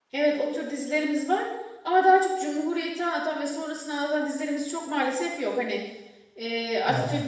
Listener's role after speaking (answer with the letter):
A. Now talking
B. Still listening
B